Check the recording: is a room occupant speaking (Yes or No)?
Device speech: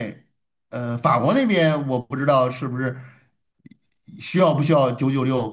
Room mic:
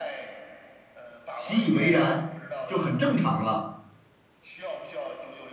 Yes